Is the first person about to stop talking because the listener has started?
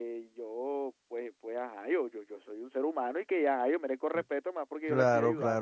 Yes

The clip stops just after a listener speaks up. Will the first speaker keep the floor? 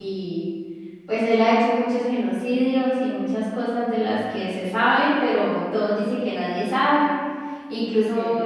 Yes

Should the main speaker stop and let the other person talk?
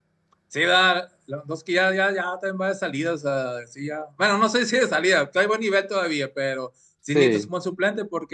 No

